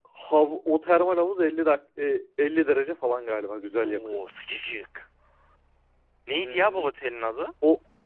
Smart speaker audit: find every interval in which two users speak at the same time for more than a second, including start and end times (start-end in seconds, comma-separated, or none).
none